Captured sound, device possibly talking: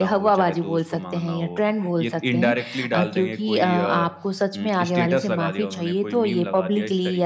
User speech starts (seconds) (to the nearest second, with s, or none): none